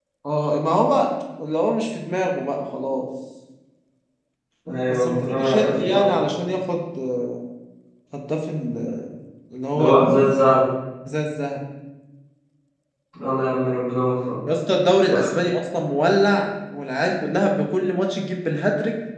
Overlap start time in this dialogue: 4.9 s

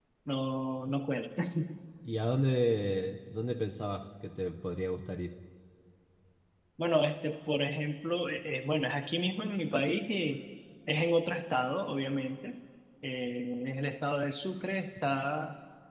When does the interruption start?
none

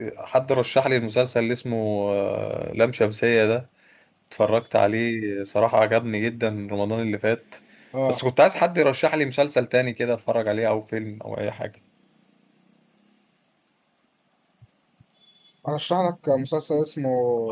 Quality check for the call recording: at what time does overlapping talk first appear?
none

